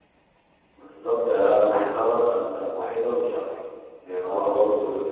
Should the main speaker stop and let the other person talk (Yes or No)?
No